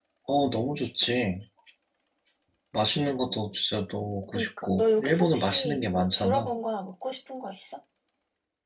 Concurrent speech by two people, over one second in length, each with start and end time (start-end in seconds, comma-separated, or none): 4.3-6.5